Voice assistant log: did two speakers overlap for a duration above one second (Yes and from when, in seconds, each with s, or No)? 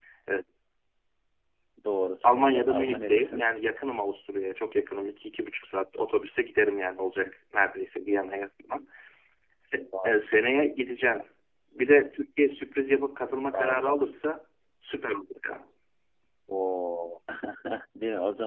Yes, from 2.2 s